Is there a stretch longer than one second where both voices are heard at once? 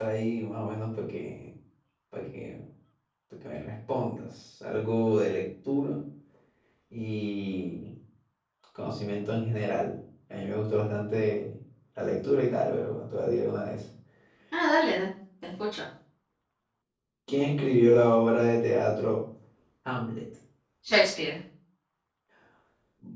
No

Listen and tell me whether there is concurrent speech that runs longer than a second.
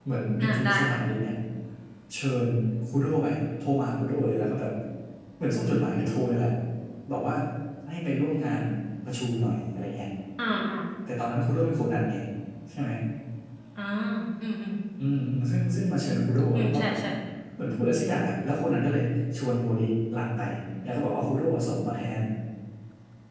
No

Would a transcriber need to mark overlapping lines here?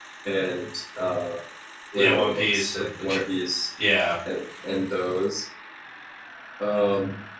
Yes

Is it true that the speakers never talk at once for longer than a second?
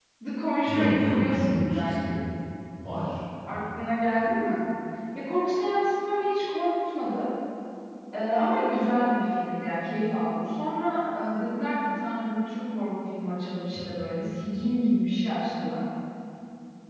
No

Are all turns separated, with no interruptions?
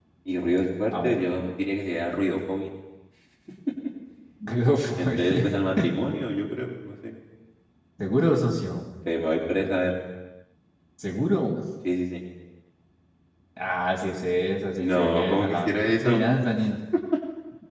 No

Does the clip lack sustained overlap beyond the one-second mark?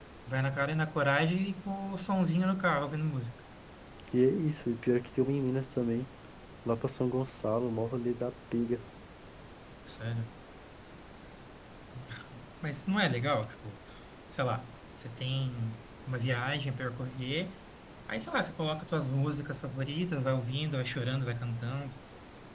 Yes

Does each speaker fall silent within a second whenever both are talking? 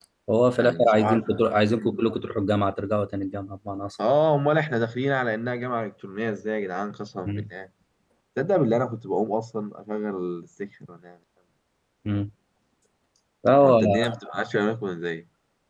No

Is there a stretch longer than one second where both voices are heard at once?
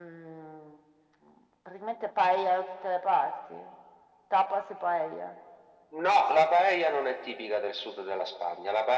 No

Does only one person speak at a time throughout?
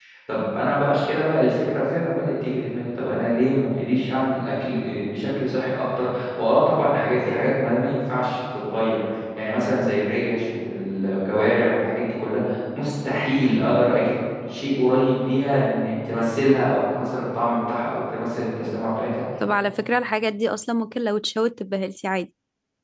Yes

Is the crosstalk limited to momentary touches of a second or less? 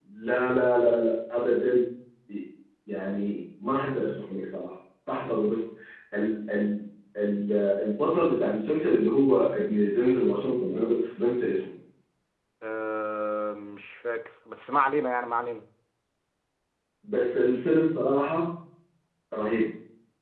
Yes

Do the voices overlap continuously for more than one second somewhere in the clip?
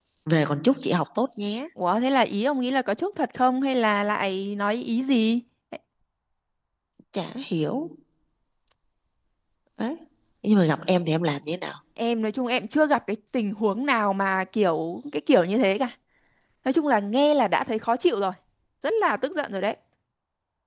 No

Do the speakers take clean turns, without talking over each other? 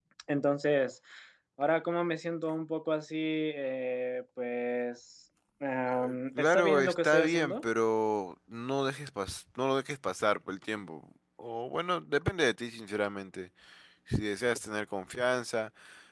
No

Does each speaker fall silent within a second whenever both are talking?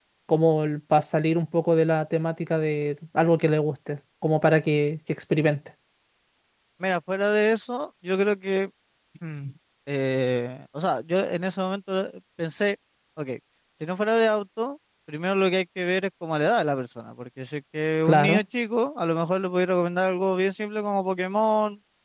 Yes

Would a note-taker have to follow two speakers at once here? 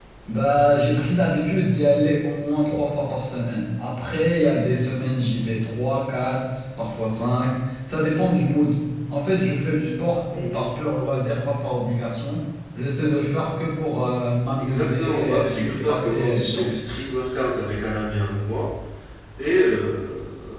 Yes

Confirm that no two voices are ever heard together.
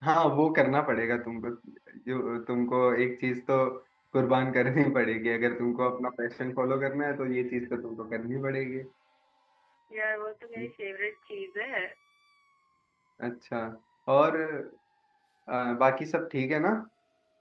Yes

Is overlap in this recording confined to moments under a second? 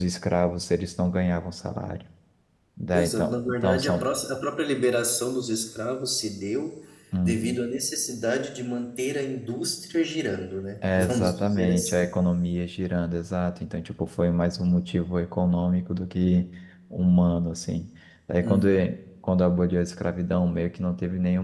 No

